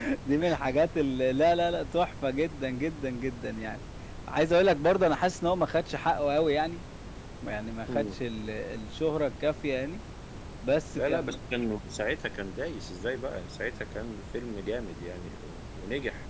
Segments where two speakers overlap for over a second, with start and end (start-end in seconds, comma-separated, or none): none